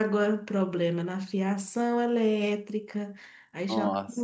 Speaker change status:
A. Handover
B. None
B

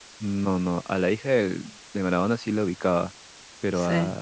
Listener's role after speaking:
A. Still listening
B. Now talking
A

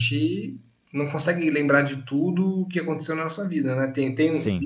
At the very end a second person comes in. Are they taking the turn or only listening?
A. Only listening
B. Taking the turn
A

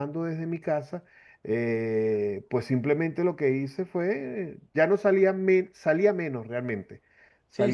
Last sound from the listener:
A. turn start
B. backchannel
A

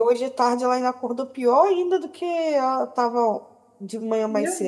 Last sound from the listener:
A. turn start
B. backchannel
A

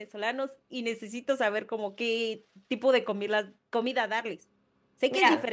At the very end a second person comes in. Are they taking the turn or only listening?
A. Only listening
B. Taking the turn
A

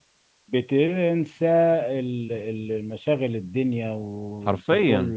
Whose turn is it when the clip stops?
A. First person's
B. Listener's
A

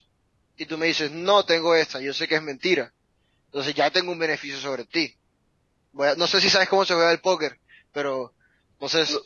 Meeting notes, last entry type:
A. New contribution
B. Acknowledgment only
A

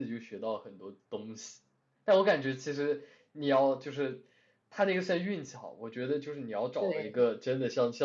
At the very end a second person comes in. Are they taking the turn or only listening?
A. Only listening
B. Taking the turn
A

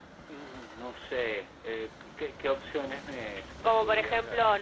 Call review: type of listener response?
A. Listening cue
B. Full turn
B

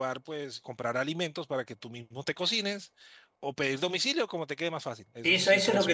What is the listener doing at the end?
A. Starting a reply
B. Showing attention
A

